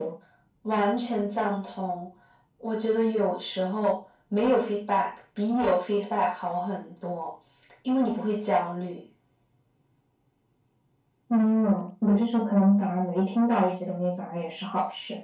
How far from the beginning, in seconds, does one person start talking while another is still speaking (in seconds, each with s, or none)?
none